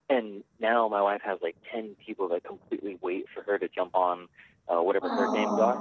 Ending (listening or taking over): listening